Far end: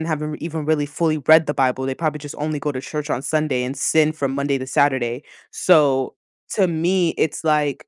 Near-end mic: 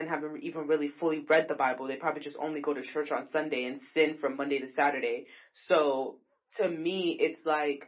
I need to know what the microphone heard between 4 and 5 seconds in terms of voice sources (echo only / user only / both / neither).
echo only